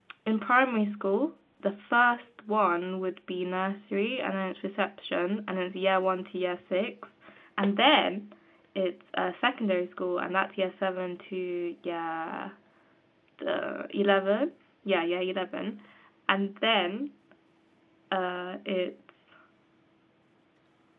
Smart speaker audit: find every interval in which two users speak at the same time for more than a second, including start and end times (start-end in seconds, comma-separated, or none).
none